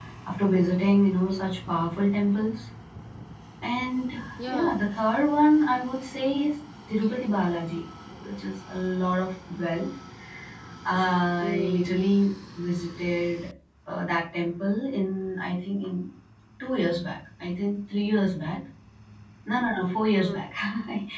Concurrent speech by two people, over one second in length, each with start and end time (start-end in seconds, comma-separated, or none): none